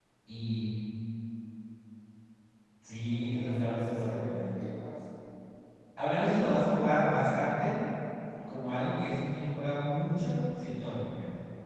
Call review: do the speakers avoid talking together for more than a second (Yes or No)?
No